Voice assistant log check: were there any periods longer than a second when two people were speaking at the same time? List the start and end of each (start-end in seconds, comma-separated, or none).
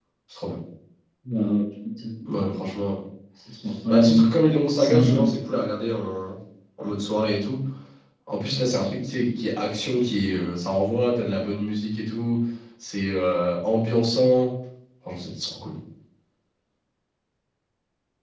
none